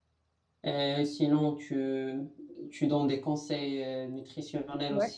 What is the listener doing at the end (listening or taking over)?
taking over